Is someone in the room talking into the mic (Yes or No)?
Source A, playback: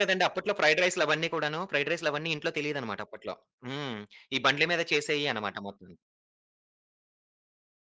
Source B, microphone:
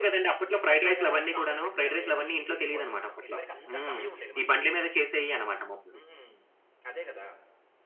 Yes